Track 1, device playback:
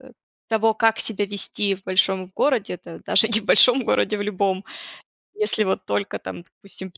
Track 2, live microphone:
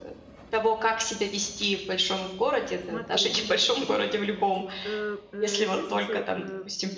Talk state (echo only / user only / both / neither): both